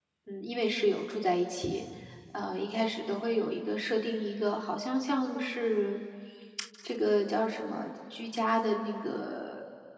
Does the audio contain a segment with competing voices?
No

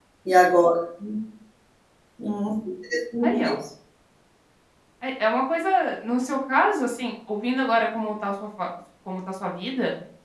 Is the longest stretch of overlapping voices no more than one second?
Yes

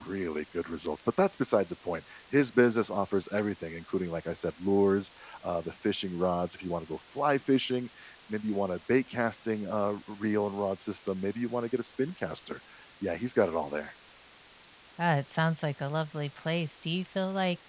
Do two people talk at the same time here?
No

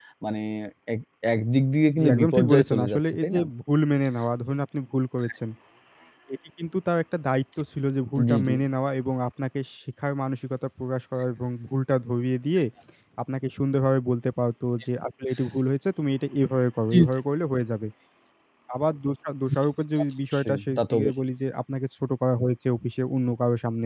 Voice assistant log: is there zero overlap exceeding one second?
No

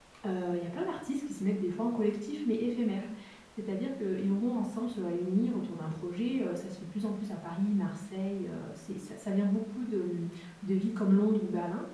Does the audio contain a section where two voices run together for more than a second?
No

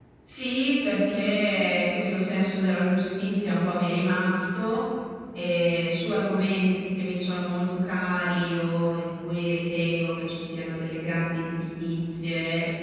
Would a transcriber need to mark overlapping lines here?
No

